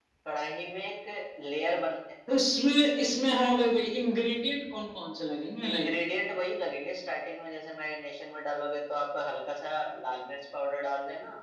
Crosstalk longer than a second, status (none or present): none